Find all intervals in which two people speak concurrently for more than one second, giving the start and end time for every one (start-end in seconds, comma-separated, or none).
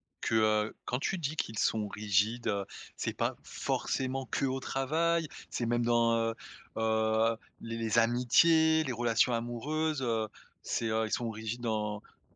none